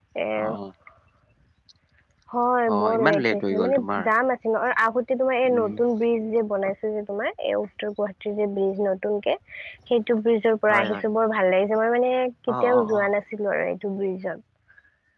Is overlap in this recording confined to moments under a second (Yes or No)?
No